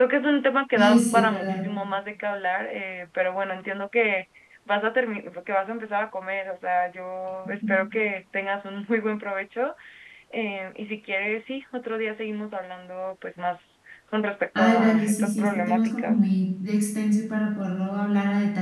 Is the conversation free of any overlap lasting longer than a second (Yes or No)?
No